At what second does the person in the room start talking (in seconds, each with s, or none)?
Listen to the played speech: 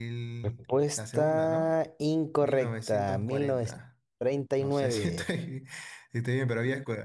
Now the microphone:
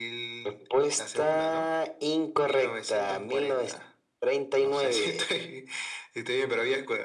none